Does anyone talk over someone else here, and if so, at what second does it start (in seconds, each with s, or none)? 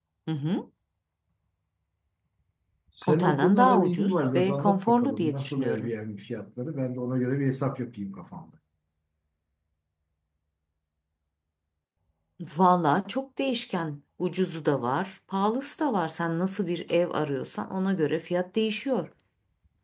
3.1 s